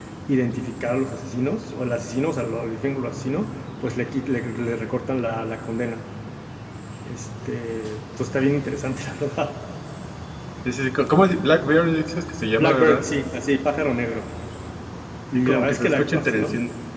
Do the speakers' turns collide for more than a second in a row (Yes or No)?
Yes